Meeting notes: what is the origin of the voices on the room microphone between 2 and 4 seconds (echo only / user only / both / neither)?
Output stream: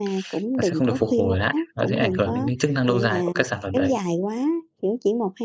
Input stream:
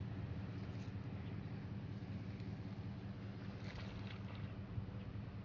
neither